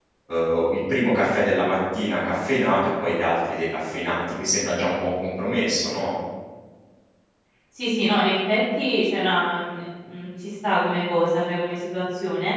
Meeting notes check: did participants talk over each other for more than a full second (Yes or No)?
No